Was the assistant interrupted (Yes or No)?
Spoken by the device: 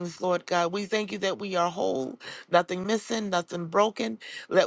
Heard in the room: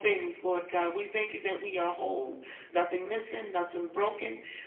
No